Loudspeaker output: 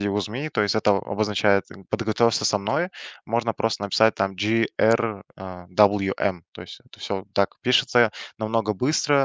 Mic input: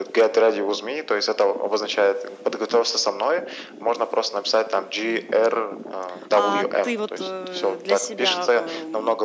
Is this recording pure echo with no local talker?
No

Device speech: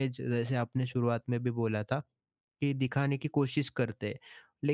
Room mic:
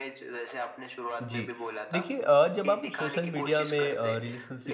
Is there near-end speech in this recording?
Yes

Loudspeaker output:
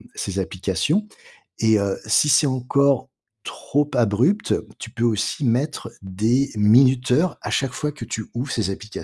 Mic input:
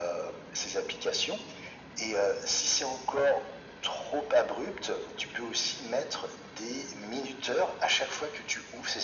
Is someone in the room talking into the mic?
No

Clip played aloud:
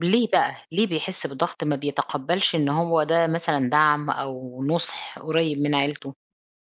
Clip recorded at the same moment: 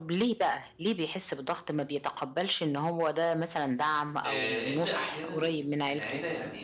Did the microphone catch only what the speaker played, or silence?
No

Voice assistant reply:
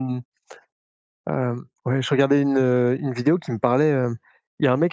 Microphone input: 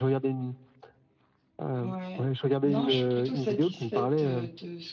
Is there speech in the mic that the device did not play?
Yes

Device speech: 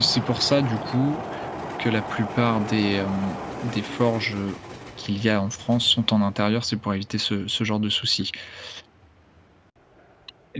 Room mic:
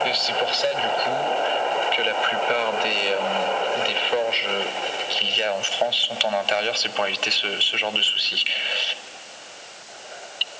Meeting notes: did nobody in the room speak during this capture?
Yes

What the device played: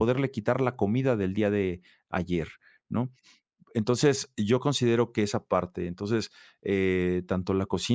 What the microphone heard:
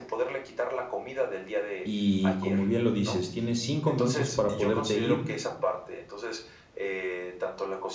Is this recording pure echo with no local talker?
No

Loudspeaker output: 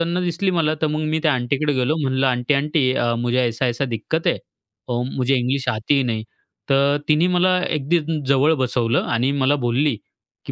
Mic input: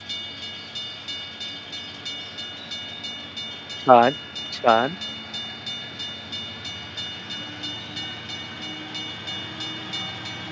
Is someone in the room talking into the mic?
Yes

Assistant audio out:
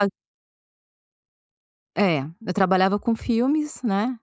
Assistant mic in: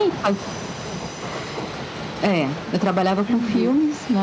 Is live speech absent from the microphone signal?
No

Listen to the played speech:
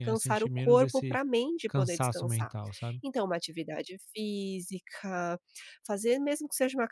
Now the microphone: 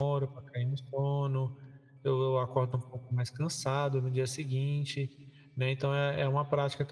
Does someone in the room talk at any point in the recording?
Yes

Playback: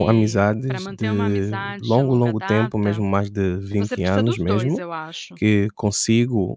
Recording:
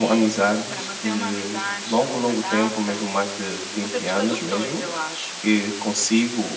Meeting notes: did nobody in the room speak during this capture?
Yes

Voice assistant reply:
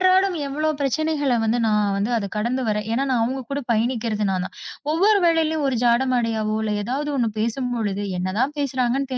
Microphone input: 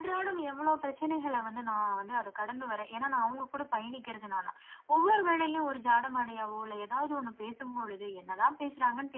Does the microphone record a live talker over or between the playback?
No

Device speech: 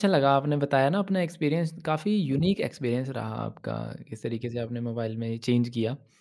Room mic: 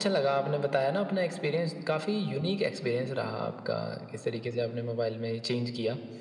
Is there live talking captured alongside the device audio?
No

